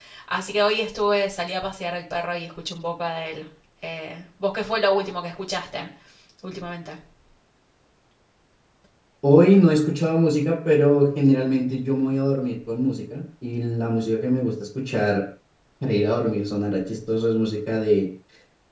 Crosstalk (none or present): none